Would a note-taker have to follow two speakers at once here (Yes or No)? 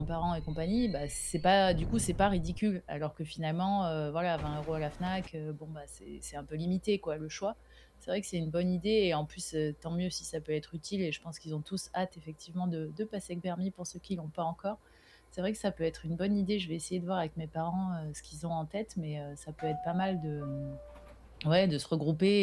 No